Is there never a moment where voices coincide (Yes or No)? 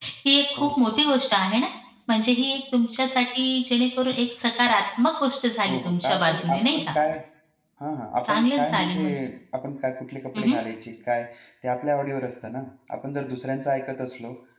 No